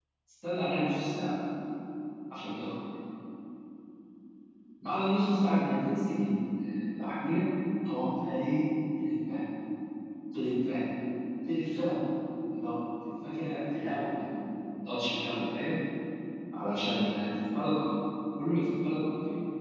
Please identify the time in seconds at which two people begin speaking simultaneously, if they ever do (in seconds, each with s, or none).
none